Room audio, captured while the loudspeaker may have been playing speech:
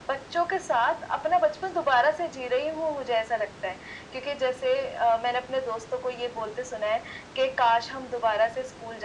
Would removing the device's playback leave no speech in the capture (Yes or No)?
Yes